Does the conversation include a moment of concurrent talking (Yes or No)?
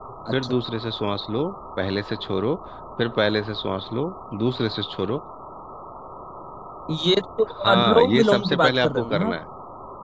Yes